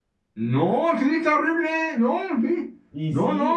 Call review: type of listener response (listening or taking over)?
taking over